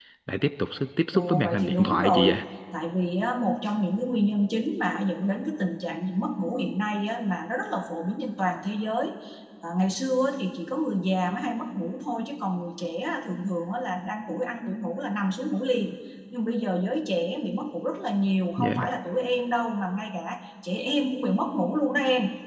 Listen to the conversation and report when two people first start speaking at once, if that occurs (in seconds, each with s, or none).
1.1 s